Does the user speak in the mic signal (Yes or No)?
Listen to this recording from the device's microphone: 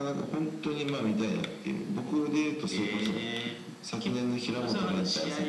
No